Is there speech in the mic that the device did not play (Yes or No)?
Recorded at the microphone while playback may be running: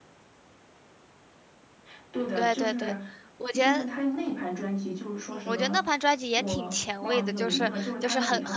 Yes